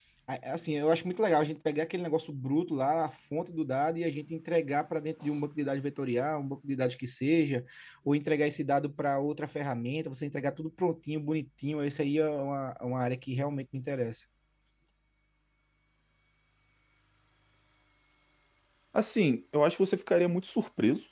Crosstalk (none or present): none